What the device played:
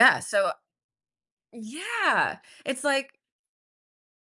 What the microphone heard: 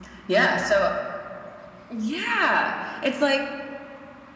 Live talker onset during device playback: none

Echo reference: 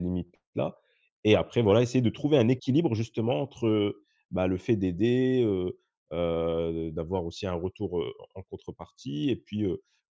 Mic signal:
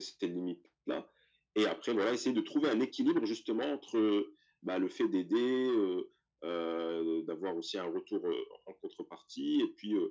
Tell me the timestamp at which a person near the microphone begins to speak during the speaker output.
none

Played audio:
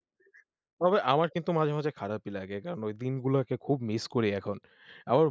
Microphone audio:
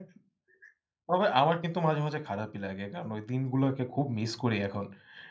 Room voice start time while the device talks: none

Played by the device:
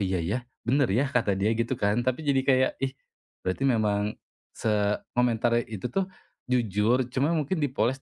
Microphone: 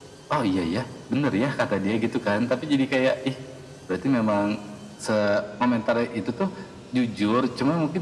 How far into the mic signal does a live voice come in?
none

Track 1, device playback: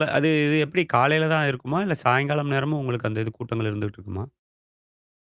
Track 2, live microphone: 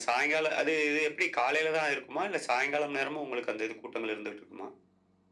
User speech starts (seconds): none

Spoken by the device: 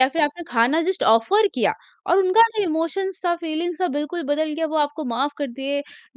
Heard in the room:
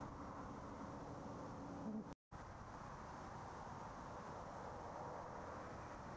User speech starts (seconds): none

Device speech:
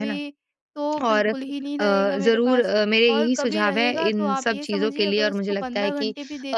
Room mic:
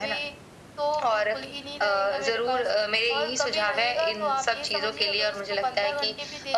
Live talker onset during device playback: none

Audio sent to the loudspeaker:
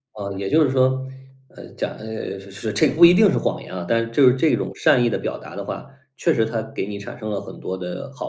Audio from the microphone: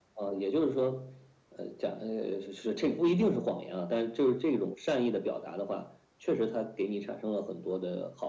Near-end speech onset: none

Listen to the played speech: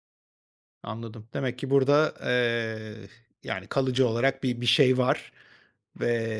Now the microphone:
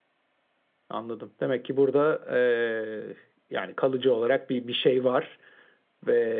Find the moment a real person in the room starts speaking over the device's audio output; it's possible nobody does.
none

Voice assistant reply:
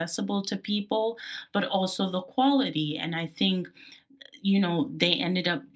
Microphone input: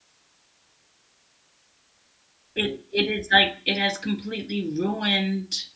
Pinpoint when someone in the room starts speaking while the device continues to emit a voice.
2.5 s

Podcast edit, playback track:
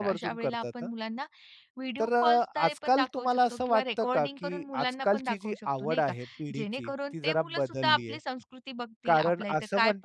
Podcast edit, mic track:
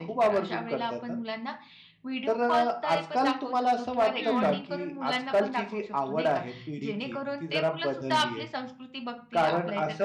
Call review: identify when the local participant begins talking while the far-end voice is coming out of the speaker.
4.2 s

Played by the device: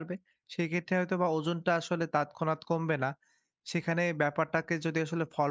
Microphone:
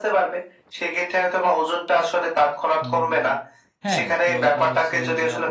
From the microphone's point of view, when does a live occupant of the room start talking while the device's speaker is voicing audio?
2.8 s

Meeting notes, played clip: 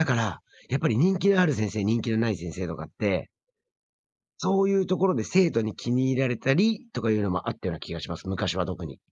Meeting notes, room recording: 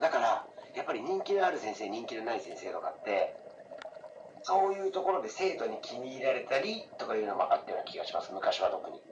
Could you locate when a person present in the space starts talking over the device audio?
none

